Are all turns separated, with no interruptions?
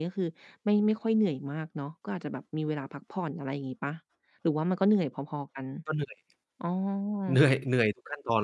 Yes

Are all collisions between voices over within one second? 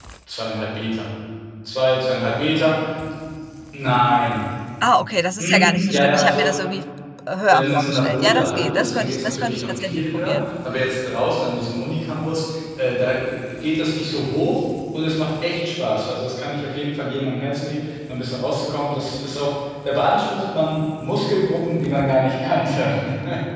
No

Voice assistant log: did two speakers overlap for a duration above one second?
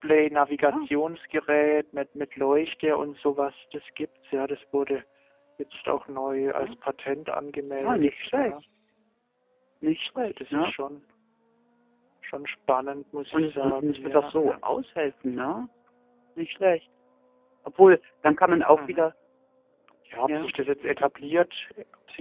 Yes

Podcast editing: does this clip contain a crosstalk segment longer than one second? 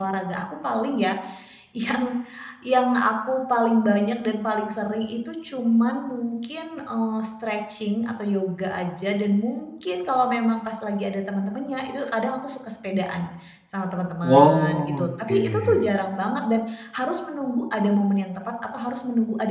Yes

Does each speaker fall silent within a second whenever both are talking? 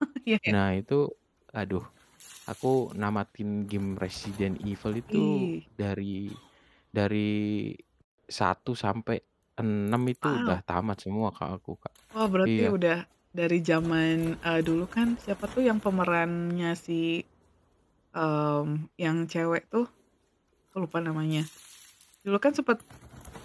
Yes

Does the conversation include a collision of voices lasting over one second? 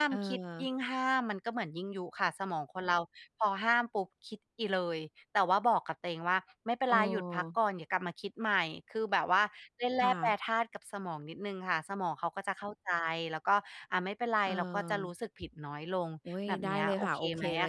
Yes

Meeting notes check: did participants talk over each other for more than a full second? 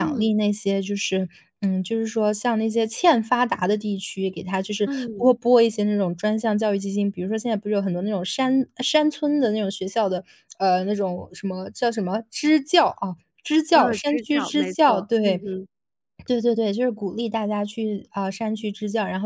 Yes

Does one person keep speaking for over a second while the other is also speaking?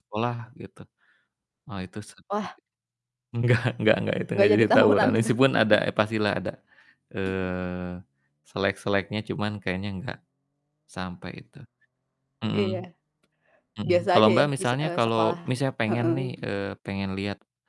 Yes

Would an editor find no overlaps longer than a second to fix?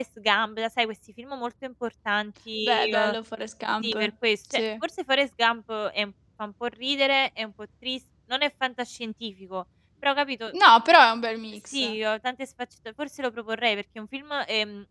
Yes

